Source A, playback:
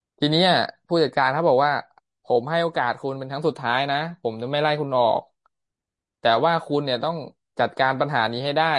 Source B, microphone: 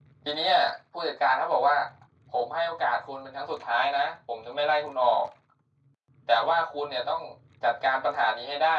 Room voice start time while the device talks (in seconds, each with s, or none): none